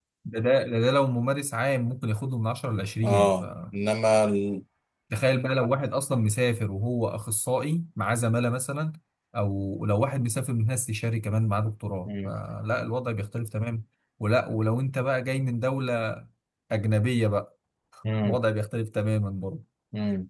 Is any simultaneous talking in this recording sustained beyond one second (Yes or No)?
No